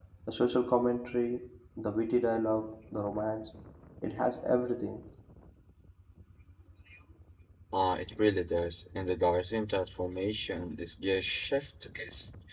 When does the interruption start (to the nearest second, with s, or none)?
none